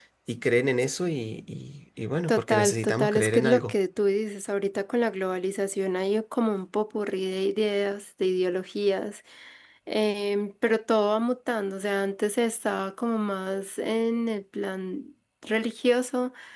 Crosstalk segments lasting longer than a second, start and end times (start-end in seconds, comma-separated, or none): 2.3-3.7